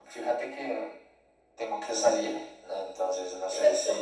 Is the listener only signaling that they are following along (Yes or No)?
Yes